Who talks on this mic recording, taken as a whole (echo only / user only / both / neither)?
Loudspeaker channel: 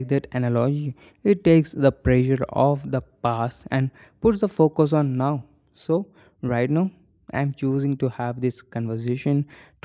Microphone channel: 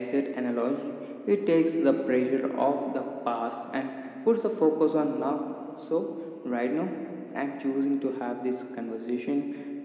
echo only